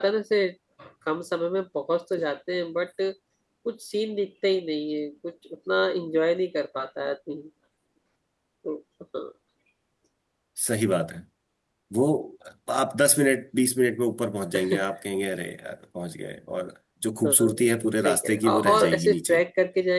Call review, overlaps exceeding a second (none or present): present